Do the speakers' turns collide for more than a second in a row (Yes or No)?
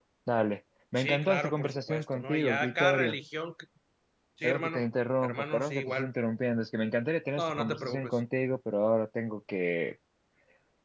Yes